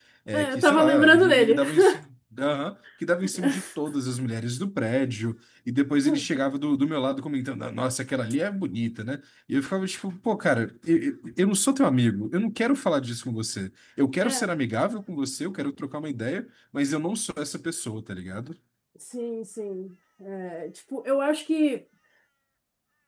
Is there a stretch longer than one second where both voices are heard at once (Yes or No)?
Yes